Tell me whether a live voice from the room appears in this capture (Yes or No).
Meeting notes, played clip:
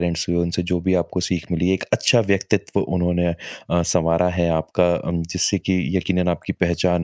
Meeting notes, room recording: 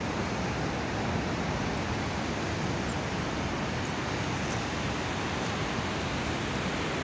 No